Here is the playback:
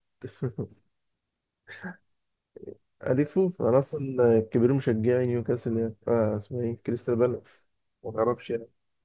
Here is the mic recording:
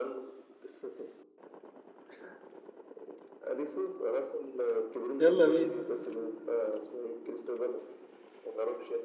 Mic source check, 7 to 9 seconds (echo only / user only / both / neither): echo only